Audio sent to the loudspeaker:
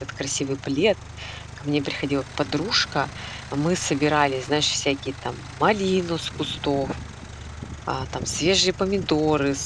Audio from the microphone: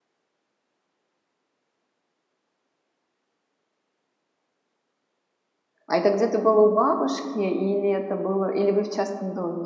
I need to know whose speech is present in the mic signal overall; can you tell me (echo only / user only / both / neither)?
user only